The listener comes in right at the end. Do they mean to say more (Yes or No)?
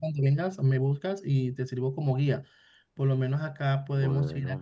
No